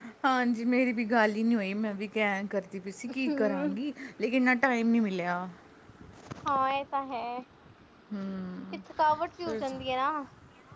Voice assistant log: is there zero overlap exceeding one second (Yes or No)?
Yes